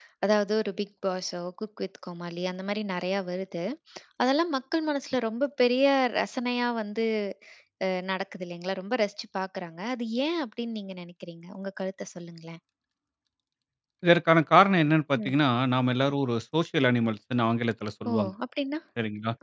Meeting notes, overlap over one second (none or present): none